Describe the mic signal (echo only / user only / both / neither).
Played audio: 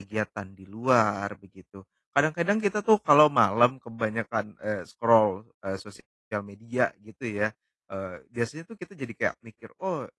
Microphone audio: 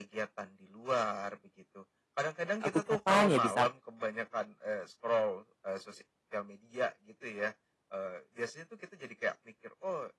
both